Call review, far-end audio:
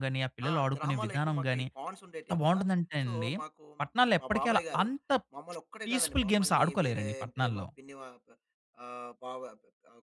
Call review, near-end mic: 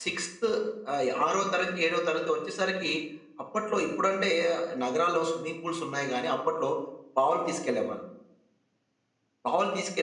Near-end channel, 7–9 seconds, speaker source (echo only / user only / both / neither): user only